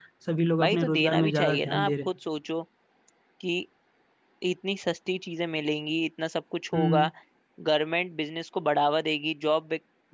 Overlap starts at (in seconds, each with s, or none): 0.6 s